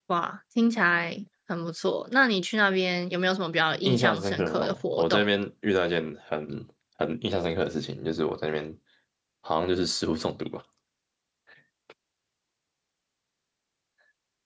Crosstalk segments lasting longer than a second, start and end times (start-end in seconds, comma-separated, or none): 3.8-5.2